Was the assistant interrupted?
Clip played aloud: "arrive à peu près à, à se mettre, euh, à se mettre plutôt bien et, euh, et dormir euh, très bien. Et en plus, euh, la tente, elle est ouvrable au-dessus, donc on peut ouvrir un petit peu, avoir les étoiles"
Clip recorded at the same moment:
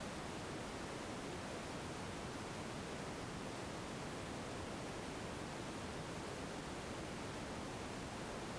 No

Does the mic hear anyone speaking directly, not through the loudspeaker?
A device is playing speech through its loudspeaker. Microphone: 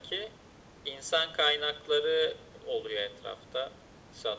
No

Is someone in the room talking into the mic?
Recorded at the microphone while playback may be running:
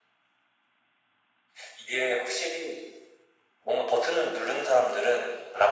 No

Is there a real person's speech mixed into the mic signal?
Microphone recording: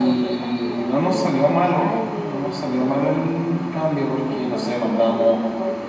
Yes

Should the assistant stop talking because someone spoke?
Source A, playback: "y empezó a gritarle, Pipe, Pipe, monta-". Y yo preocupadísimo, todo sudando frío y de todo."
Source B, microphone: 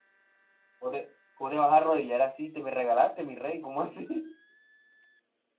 Yes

